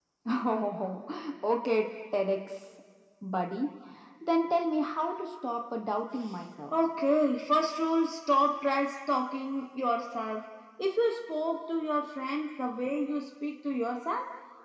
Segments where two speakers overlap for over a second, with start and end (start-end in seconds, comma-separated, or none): none